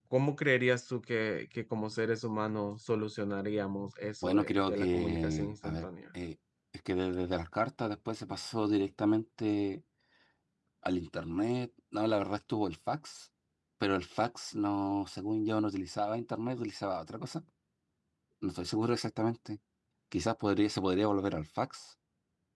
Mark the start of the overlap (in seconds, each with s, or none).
4.2 s